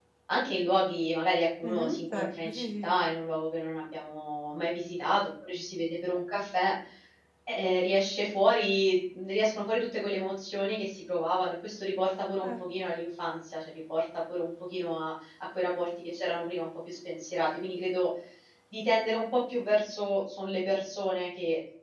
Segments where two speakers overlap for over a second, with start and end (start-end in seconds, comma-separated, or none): 1.6-3.0